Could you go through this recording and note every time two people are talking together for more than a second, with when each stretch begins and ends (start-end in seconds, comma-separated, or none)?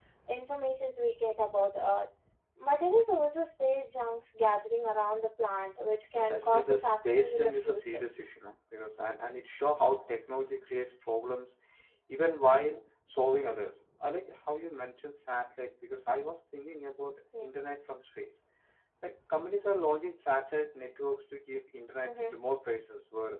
6.1-8.0